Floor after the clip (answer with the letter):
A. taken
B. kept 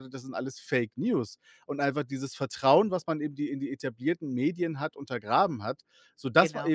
B